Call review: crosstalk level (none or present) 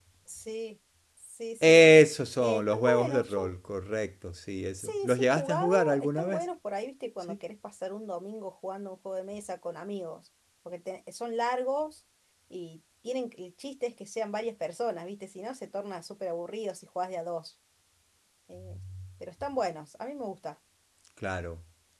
present